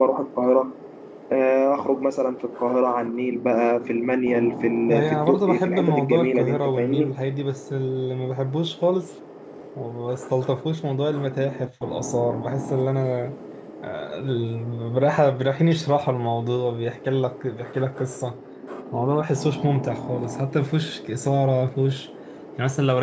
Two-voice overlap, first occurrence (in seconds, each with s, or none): 4.9 s